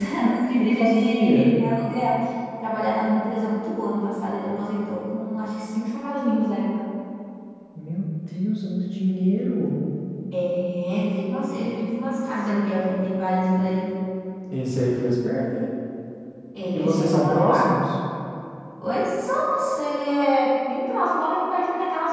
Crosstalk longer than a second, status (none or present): present